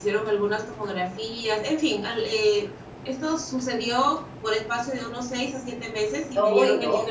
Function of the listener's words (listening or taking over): taking over